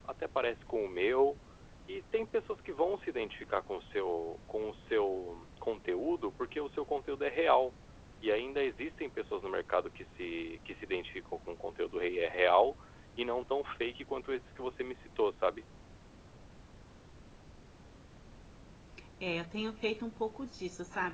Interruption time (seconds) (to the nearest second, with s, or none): none